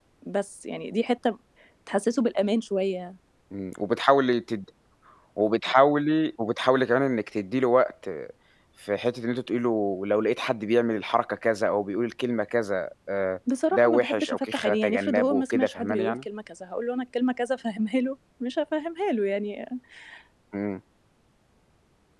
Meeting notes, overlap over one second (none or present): present